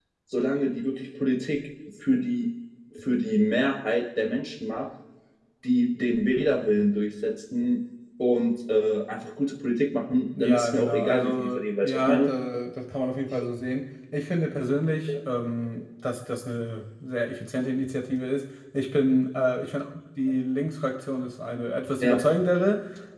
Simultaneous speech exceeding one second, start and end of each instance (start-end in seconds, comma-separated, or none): 10.4-12.3